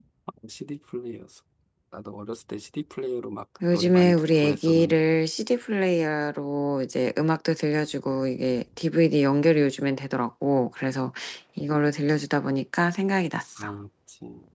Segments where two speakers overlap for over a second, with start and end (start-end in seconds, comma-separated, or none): 3.7-5.0